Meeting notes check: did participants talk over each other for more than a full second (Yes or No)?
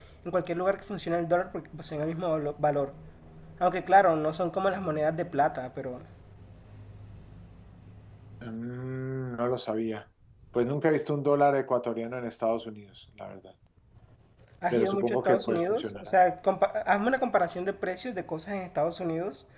Yes